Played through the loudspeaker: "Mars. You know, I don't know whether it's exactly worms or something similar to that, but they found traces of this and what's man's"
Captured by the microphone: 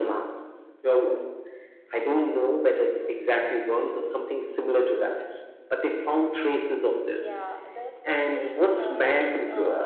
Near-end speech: present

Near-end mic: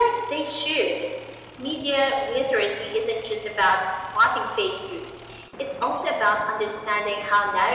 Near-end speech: none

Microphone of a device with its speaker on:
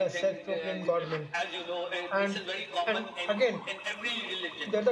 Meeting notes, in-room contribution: present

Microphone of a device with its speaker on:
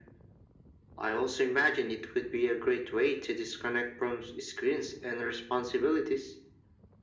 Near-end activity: none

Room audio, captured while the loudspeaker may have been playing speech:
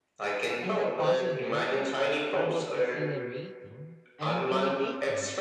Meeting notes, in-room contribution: present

